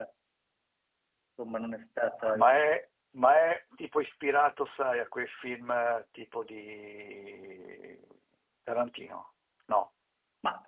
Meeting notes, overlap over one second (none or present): none